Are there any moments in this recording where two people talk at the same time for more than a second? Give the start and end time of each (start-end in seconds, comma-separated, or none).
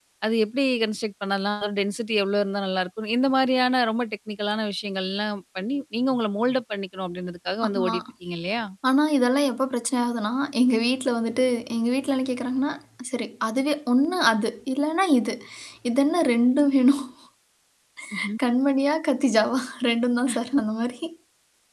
none